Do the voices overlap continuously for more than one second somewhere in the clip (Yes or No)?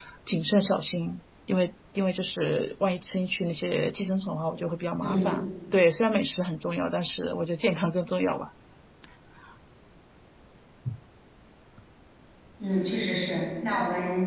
No